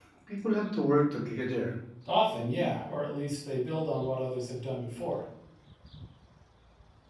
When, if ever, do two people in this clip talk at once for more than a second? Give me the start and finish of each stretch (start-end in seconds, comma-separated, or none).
none